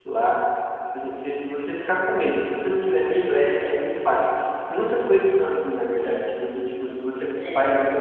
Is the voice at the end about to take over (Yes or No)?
No